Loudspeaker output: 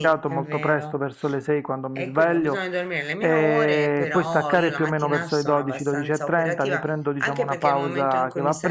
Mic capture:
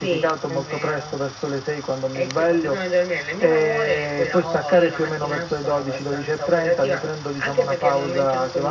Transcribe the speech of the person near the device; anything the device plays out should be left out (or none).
none